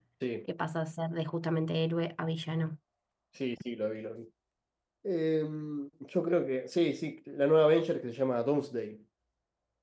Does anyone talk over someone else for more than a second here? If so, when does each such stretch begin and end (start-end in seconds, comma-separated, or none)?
none